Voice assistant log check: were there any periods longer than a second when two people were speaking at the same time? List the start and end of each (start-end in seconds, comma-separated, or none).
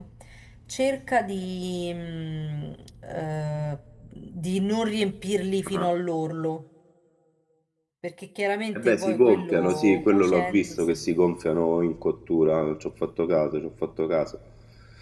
8.8-10.9